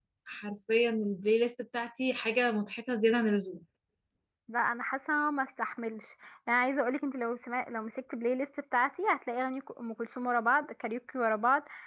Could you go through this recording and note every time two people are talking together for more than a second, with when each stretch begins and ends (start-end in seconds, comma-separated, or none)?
none